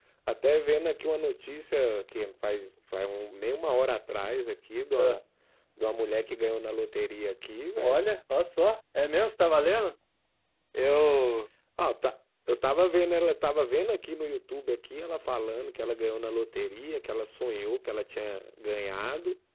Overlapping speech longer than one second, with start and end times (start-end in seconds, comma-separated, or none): none